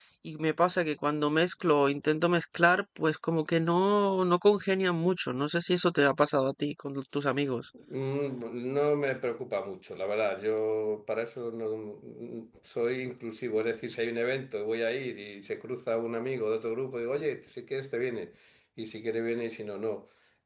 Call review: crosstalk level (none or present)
none